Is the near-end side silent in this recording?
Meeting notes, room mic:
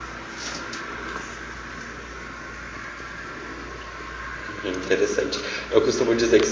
No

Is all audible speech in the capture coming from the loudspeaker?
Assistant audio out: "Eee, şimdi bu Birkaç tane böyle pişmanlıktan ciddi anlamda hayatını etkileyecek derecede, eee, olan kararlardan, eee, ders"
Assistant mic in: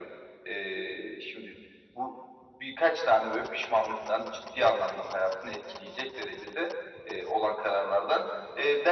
Yes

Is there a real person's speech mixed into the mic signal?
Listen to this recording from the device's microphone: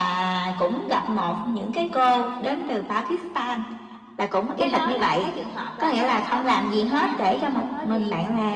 Yes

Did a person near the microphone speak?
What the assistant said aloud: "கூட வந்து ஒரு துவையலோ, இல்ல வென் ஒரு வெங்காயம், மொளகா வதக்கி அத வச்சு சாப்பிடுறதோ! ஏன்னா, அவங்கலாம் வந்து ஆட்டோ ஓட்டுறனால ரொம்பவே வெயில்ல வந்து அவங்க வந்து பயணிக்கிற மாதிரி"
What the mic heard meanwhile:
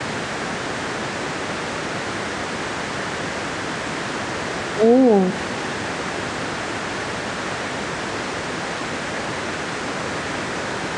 Yes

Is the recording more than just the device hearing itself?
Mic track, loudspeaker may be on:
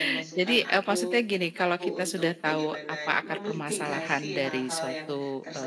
Yes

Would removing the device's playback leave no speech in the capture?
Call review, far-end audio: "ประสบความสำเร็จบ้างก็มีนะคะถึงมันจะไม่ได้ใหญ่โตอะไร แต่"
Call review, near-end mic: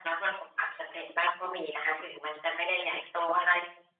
Yes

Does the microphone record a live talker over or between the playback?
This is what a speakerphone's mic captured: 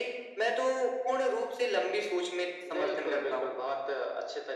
No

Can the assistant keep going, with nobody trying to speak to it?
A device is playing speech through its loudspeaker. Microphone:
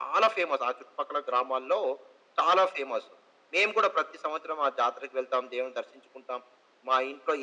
Yes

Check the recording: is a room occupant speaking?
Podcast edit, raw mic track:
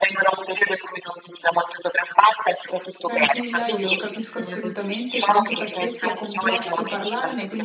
Yes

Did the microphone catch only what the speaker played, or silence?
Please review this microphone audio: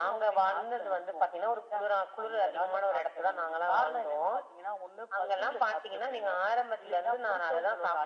Yes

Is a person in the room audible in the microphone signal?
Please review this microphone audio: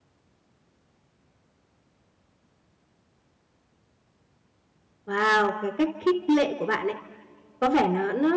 Yes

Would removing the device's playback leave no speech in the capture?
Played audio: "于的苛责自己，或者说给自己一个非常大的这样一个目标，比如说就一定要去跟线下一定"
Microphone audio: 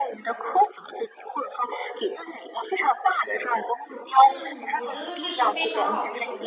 No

